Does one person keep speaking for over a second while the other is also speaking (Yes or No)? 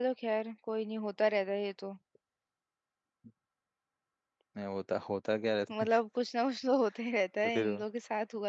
No